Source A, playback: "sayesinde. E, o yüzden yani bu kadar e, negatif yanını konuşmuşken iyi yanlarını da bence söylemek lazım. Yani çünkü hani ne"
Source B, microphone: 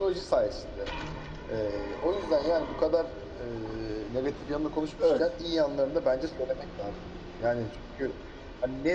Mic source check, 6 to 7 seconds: echo only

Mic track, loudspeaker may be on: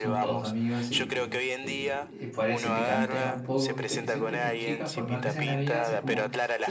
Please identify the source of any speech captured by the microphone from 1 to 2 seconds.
both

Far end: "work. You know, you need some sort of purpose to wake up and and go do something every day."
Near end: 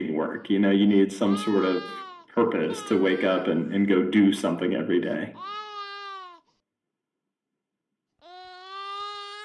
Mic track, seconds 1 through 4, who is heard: echo only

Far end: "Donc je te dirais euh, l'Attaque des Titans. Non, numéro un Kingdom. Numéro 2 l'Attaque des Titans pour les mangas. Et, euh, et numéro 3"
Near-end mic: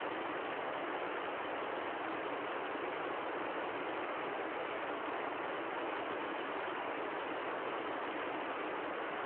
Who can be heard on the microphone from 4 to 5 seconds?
neither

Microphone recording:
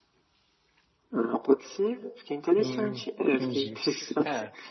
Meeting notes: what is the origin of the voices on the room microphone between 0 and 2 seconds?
echo only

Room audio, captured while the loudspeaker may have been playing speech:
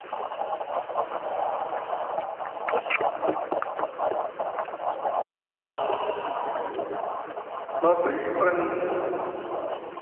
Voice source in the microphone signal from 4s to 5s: neither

